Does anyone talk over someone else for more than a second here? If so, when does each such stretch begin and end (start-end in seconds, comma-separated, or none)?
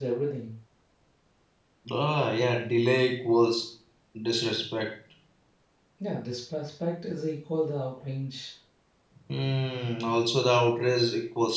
none